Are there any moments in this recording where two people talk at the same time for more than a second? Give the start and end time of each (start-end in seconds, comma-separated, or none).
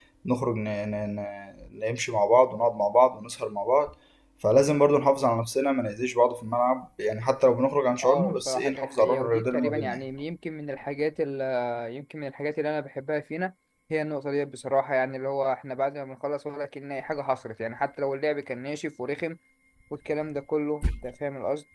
8.0-10.0